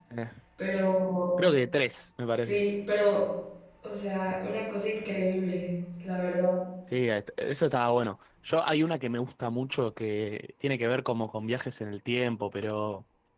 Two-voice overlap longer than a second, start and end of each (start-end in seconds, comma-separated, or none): none